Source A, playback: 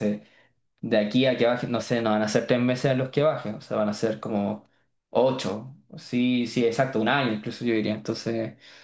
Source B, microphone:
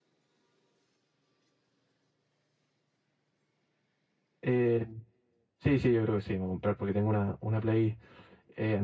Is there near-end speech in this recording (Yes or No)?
Yes